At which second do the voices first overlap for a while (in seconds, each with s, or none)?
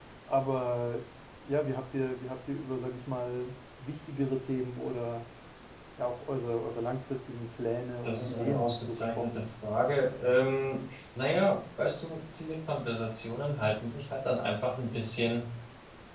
8.0 s